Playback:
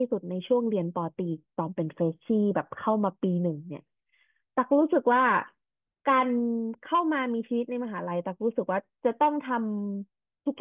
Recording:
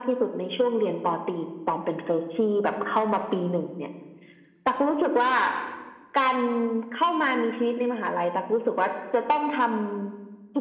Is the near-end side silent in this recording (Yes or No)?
Yes